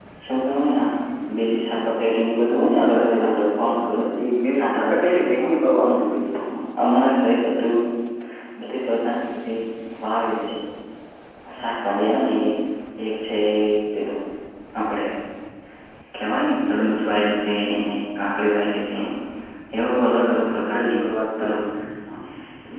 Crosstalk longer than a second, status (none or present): present